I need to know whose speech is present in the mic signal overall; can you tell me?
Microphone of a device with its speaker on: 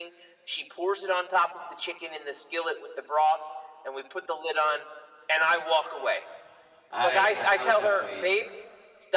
both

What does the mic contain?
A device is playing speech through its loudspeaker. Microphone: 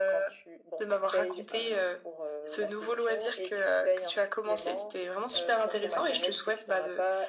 echo only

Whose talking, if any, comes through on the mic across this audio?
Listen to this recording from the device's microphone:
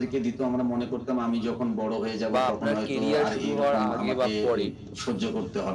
both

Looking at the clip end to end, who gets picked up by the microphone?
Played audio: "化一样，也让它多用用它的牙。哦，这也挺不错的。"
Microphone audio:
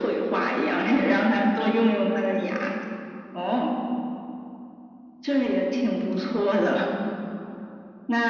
echo only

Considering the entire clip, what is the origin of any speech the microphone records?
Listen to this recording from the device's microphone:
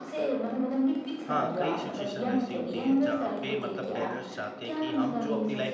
both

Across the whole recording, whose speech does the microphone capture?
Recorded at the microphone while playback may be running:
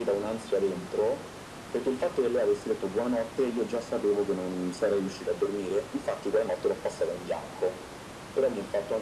echo only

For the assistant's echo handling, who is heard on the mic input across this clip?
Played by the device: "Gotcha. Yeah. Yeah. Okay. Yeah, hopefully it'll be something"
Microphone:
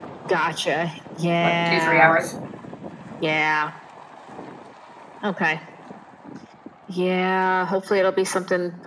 both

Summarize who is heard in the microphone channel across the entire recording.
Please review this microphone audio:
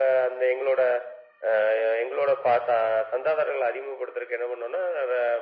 echo only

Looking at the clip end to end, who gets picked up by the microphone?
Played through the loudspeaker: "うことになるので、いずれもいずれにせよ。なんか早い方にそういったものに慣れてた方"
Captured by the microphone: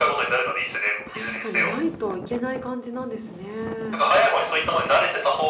both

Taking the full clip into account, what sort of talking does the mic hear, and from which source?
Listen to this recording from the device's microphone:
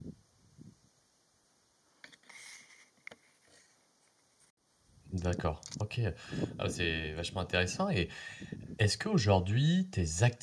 user only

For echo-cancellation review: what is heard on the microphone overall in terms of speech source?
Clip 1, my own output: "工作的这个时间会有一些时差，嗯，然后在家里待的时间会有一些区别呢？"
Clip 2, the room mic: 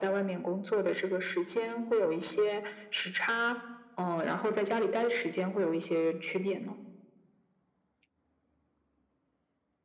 echo only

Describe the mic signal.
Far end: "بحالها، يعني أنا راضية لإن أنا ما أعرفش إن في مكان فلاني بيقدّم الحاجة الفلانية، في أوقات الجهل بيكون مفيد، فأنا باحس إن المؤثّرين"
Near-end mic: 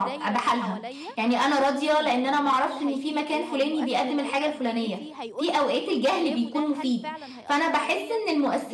both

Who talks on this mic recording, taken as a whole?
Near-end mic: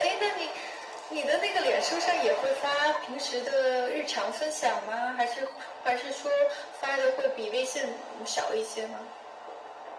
echo only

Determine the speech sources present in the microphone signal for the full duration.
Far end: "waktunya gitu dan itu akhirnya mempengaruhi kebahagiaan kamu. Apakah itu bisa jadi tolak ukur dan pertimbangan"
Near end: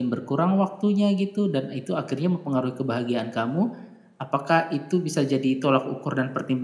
echo only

